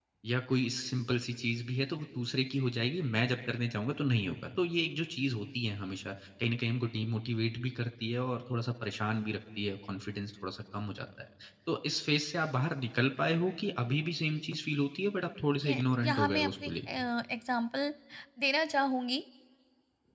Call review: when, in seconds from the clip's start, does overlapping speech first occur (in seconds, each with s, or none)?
15.6 s